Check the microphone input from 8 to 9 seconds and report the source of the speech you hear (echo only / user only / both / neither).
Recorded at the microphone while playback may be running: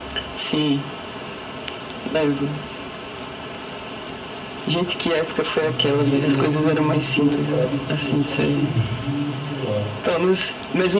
both